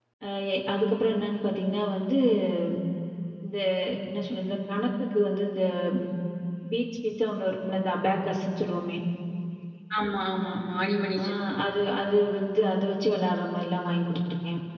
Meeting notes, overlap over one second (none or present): none